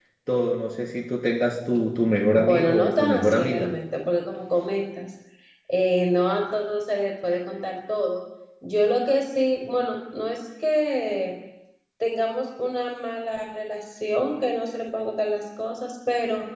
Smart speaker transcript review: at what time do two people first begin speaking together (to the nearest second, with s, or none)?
2 s